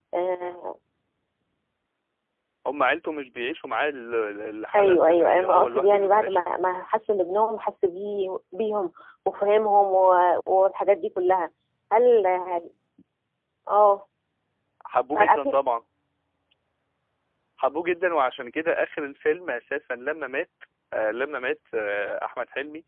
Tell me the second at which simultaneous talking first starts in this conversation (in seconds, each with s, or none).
4.7 s